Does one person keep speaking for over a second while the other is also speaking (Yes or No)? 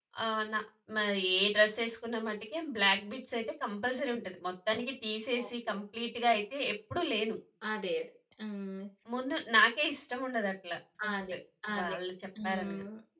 No